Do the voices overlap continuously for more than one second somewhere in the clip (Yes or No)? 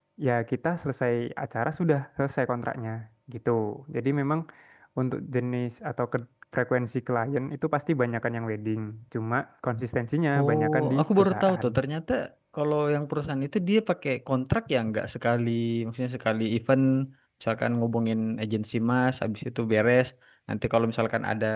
Yes